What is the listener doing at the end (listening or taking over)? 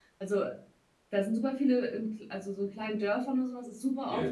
listening